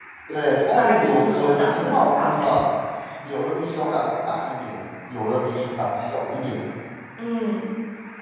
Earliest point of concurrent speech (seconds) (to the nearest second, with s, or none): 1 s